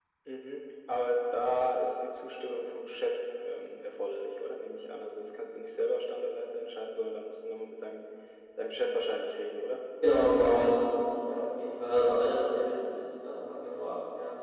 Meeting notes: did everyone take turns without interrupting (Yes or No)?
Yes